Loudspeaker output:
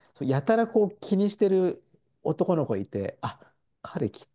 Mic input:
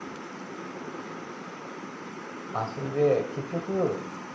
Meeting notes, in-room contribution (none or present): present